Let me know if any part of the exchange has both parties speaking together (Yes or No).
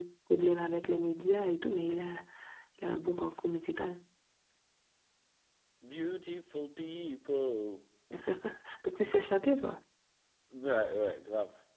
No